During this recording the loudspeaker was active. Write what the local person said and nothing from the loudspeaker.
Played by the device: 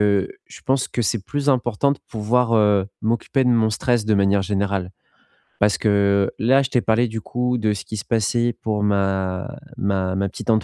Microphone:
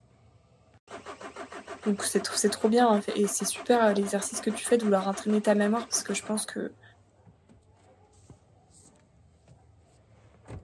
donc c'est tr c'est trop bien, hein, f et c'est super, heu, l'exercice que tu fais de vouloir entraîner ta mémoire parce que je pense que,

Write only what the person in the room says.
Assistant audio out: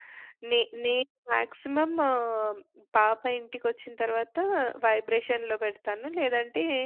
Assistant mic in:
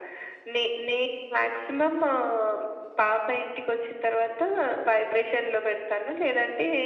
none

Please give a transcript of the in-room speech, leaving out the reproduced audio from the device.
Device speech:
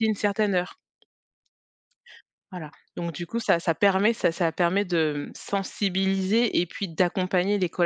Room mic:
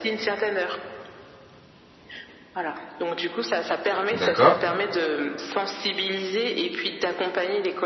d'accord,

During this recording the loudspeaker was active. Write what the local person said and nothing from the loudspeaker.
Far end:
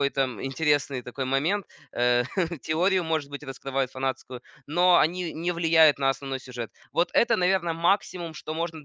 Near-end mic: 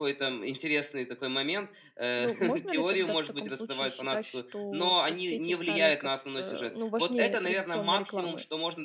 Ну, можно ли тогда в таком случае считать, что соцсети стали как-то, ну, важнее традиционной рекламы?

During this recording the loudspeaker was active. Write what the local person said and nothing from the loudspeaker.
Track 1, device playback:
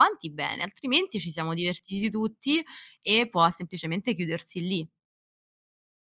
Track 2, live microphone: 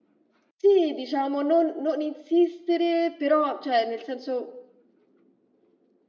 sì, diciamo non non insistere, però cioè nel senso,

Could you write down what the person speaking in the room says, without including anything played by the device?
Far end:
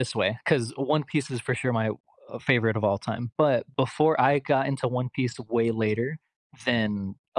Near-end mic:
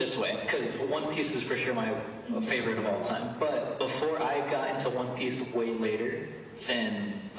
Mhm, mhm,

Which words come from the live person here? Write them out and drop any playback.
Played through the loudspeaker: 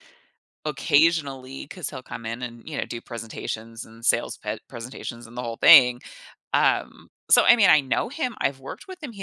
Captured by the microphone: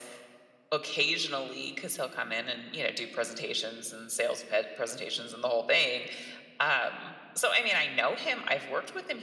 none

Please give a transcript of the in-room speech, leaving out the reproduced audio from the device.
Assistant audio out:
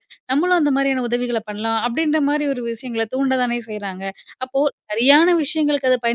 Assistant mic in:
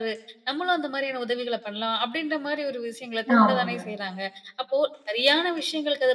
ஆமாங்க,

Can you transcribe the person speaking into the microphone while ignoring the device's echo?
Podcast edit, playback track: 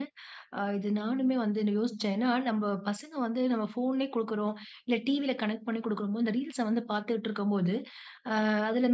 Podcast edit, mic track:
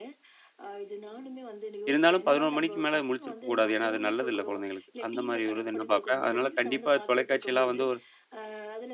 இருந்தாலும் 11 மணிக்கு மேல முழிச்சிருக்க கூடாது. ஏன்னா, அது நல்லதில்ல குழந்தைகளுக்கு. அந்த மாரி ஒரு இது நான் பார்ப்பேன். அதனால கண்டிப்பா தொலைக்காட்சிலாம் வந்து ஒரு

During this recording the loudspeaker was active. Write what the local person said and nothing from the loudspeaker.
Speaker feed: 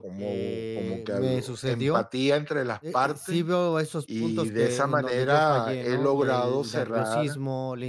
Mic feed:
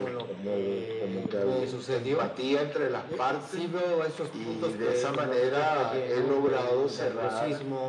none

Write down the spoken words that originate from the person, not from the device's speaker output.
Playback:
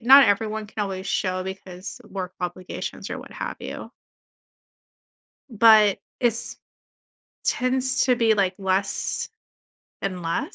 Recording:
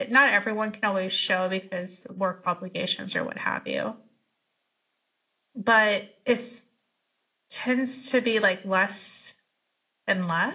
none

